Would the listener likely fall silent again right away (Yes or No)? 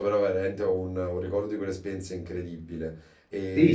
No